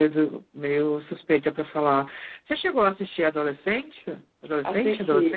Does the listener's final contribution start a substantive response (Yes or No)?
Yes